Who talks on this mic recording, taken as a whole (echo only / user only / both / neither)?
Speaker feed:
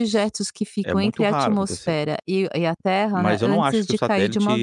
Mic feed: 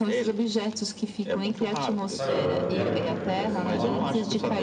both